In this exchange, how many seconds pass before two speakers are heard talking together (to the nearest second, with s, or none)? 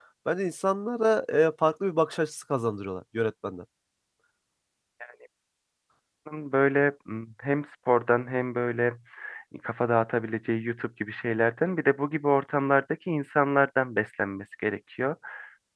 none